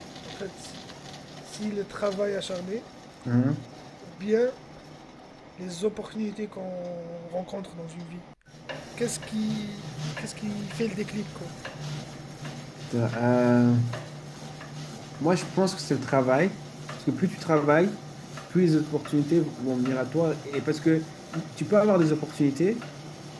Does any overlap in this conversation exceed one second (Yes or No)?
No